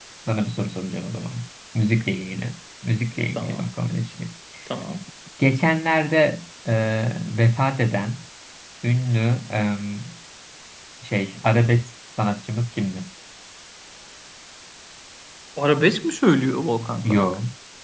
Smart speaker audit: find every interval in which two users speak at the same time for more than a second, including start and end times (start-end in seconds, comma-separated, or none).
none